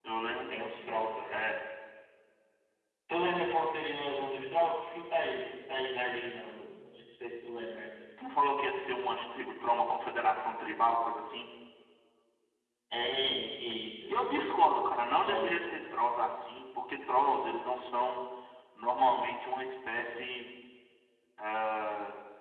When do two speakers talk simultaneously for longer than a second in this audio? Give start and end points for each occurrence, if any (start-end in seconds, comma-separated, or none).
none